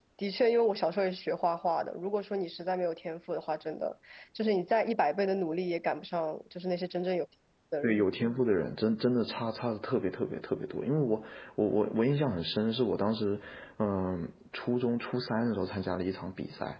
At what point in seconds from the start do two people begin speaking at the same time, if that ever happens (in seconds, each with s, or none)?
none